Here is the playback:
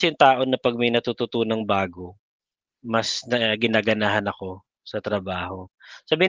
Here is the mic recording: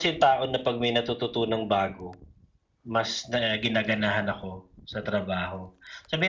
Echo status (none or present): present